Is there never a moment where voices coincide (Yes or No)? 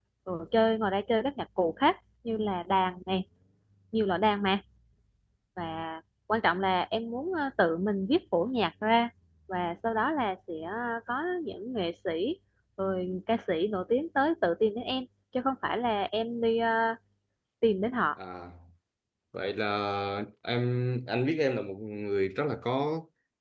Yes